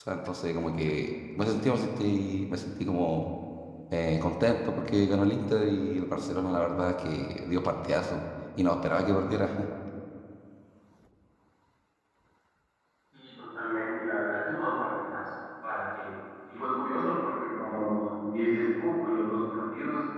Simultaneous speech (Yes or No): No